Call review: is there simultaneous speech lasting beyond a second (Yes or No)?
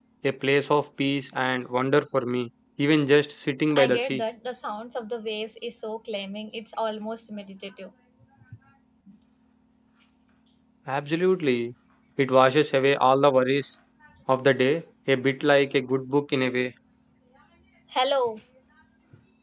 No